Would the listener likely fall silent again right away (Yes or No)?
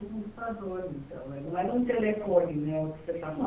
No